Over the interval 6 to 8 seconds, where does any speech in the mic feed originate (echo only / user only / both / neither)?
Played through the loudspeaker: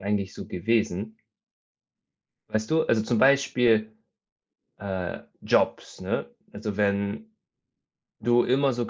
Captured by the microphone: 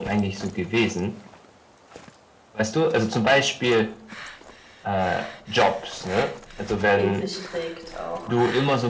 both